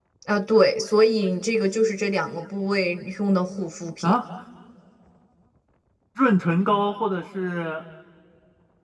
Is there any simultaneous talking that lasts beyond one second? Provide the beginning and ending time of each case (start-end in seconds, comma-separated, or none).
none